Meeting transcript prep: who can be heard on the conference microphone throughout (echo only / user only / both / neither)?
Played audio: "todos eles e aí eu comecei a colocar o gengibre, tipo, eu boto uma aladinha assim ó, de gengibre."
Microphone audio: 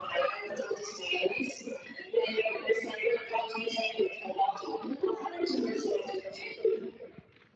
echo only